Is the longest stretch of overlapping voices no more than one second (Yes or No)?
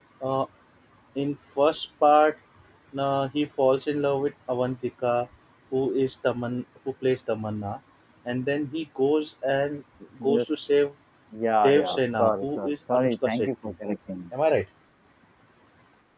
No